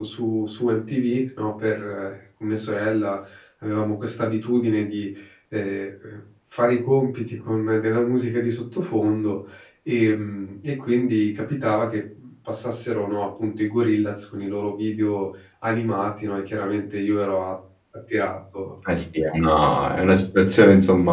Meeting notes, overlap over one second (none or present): none